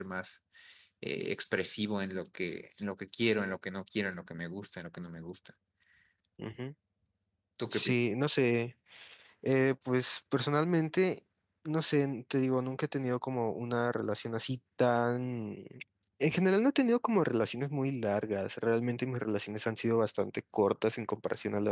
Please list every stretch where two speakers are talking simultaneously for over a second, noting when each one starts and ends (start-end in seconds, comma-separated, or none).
none